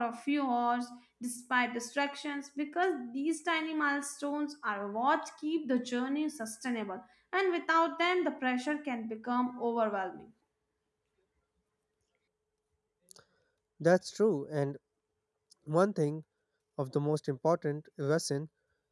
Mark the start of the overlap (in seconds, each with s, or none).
none